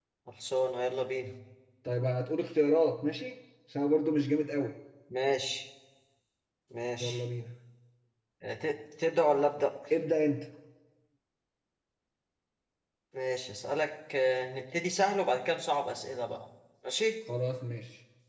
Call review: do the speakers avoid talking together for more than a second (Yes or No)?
Yes